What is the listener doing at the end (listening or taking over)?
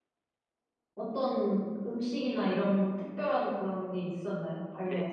taking over